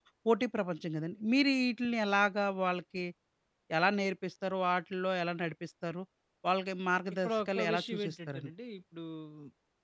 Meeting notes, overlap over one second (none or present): present